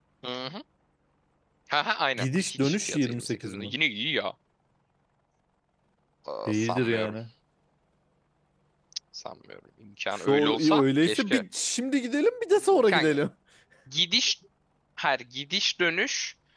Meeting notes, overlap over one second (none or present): present